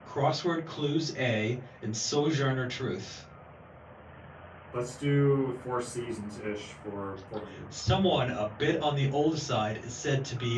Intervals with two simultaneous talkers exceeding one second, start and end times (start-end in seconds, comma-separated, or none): none